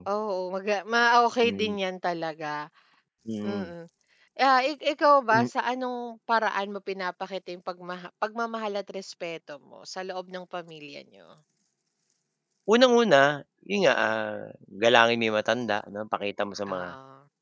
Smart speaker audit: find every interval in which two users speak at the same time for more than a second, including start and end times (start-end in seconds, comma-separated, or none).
none